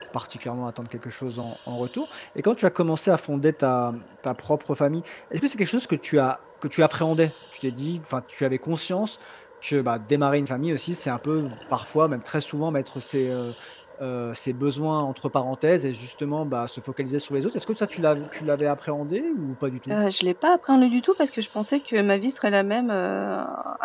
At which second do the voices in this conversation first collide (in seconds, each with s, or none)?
none